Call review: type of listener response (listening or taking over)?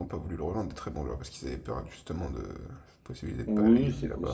taking over